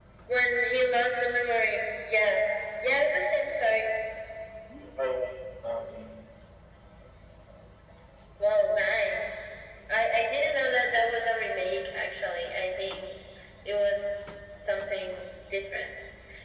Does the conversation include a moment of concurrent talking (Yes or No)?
No